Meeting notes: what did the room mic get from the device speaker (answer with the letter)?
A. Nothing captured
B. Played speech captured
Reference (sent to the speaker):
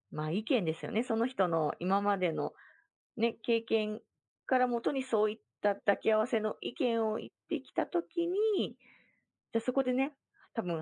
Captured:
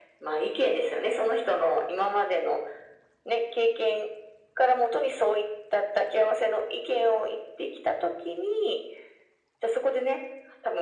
B